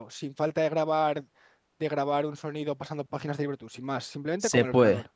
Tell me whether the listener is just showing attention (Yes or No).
No